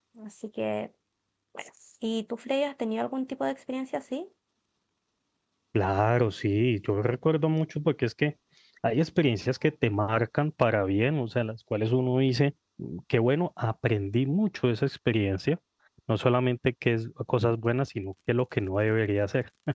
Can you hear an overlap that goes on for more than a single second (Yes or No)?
No